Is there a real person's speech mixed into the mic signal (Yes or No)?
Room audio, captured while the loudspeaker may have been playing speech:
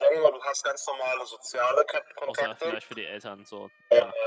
Yes